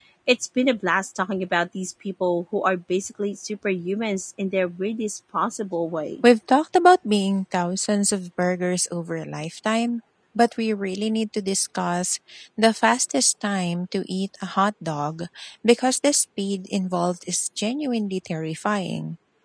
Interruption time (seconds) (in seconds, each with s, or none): none